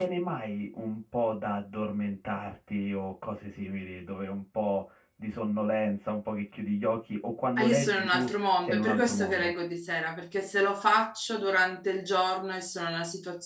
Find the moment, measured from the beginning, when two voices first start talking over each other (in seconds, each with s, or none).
7.6 s